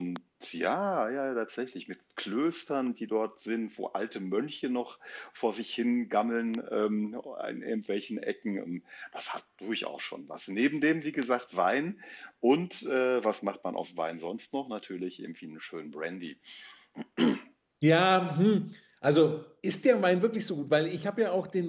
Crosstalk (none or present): none